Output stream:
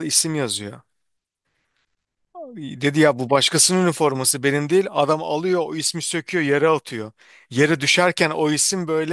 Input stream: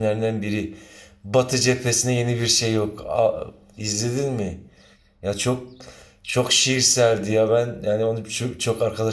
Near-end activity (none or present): present